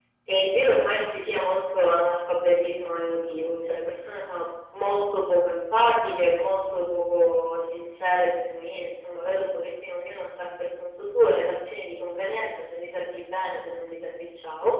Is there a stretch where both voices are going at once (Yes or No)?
No